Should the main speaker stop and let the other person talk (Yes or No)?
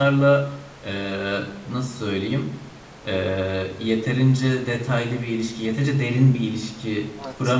Yes